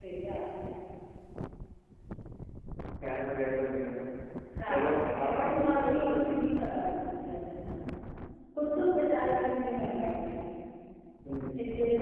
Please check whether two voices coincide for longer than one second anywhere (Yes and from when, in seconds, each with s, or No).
Yes, from 4.7 s